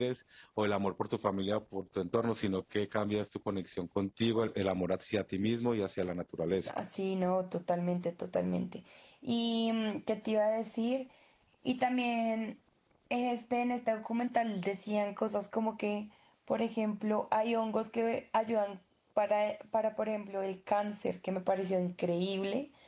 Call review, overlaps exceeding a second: none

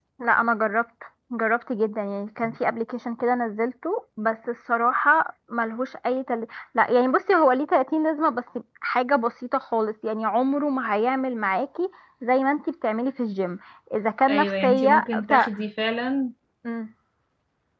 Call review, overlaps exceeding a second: present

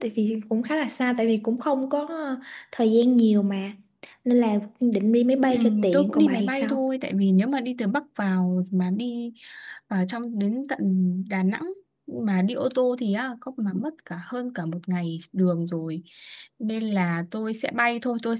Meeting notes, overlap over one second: present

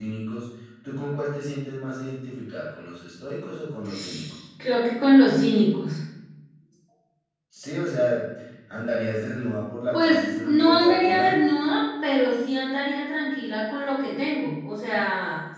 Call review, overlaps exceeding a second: present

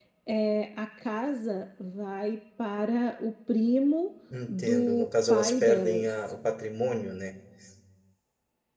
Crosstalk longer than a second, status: present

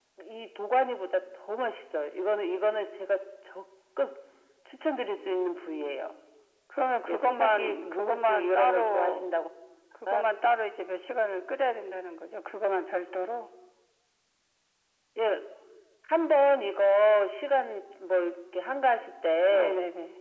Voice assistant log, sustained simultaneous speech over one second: present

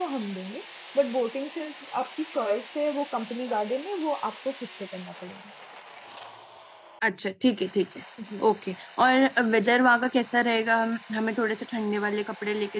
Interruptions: none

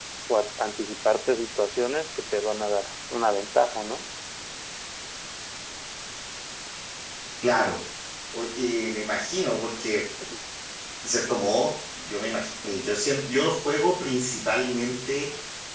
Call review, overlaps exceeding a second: none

